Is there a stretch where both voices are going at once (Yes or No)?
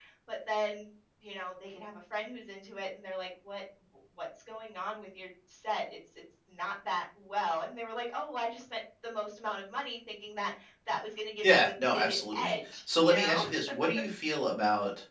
Yes